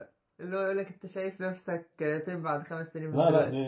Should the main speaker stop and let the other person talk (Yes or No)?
Yes